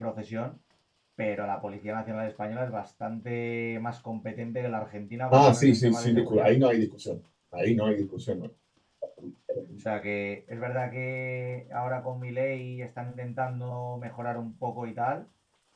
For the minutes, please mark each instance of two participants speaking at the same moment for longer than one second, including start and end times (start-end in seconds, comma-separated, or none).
5.3-6.5